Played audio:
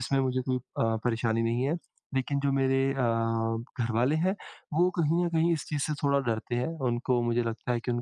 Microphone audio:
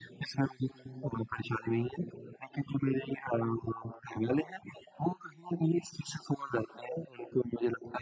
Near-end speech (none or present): none